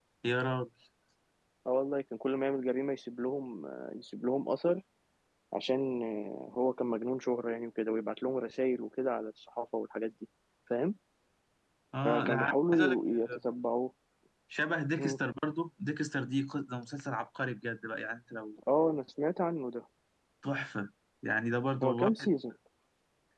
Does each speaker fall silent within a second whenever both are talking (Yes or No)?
No